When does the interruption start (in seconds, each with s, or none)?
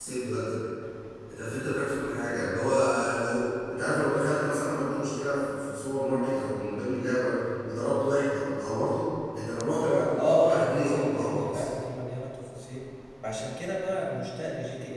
10.2 s